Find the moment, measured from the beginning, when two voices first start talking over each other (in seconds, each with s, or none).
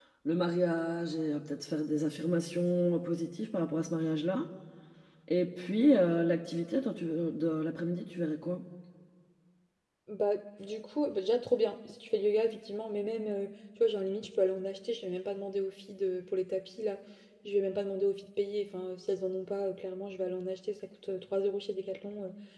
none